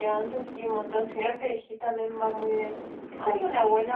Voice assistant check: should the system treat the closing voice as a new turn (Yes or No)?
No